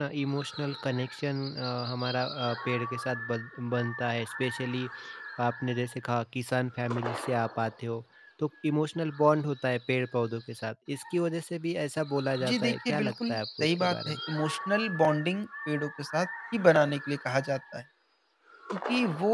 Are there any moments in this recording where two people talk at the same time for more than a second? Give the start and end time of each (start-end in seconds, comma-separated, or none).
12.4-14.2